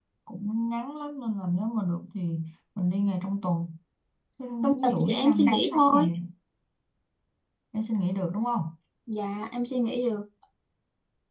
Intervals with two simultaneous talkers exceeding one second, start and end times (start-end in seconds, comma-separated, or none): 4.6-6.1